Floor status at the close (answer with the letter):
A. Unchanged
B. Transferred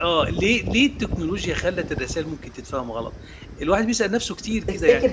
A